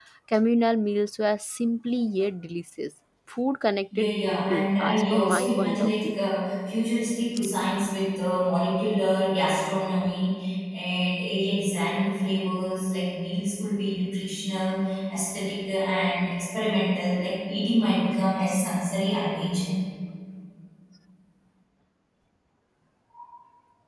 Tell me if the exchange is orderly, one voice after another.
No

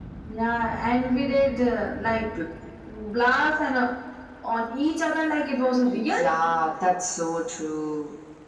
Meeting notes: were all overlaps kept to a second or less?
Yes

